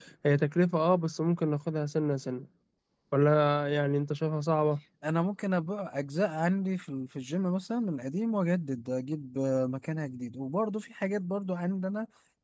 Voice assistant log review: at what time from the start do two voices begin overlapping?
none

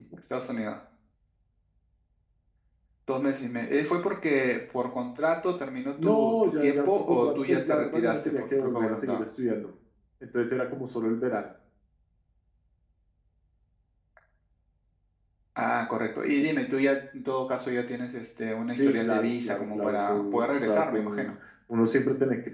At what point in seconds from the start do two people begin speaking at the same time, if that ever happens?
6.0 s

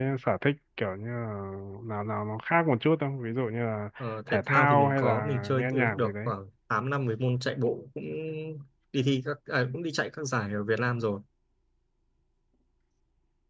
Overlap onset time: 4.3 s

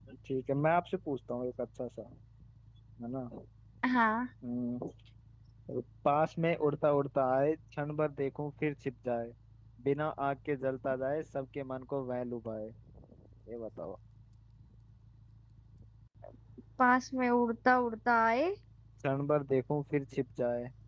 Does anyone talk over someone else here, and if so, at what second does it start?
none

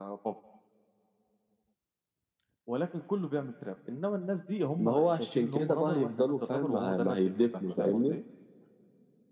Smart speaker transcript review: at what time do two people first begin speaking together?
4.8 s

